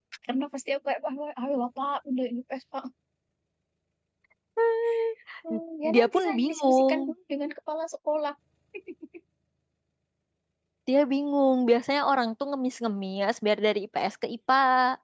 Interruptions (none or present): present